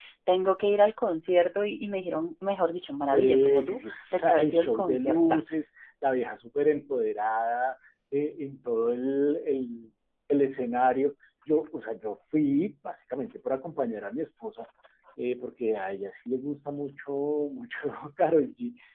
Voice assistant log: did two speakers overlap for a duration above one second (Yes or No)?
Yes